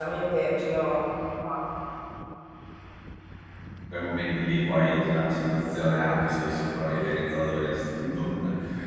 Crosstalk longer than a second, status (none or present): none